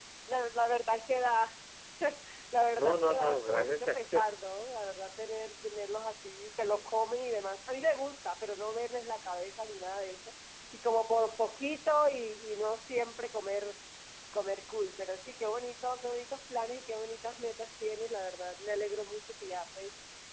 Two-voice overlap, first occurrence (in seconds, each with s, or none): 2.7 s